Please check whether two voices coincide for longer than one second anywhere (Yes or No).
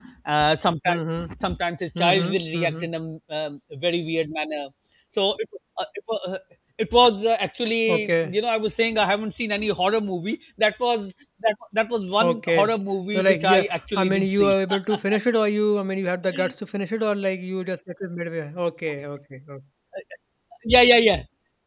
Yes